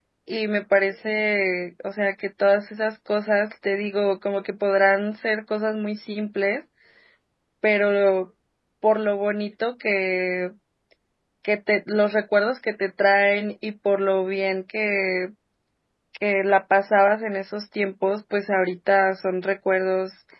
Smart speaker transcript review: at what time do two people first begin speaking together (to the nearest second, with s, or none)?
none